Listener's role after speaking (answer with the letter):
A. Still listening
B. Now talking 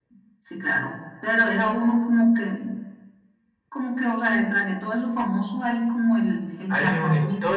B